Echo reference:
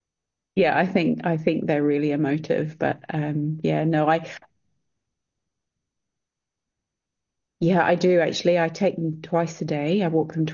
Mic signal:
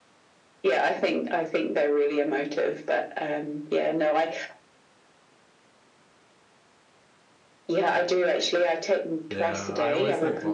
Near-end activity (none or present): present